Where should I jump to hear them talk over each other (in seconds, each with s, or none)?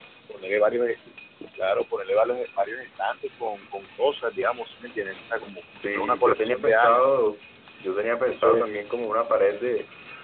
5.7 s